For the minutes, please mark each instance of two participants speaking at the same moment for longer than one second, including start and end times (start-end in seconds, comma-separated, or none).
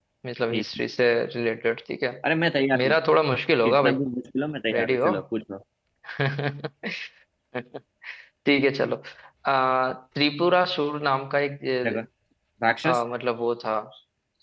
none